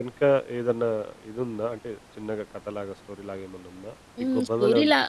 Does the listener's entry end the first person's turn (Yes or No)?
Yes